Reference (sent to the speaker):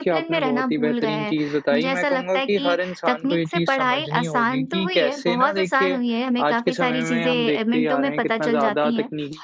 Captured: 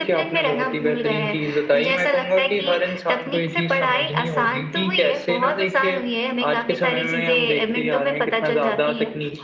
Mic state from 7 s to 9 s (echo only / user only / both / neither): echo only